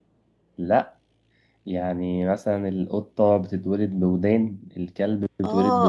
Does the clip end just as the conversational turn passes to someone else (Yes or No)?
Yes